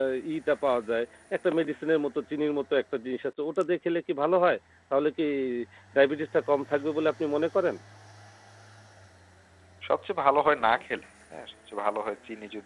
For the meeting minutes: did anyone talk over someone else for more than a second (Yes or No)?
No